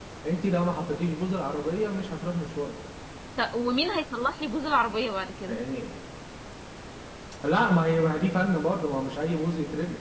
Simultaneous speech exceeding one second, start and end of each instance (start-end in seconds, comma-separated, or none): none